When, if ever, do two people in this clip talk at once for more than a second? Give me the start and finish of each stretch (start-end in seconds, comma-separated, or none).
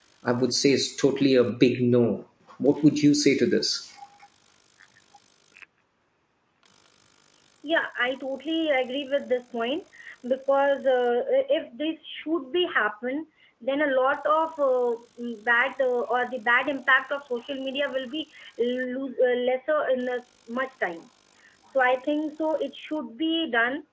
none